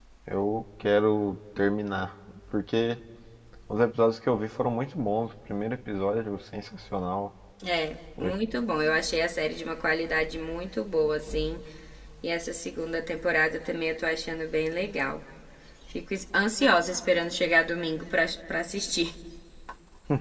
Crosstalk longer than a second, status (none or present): none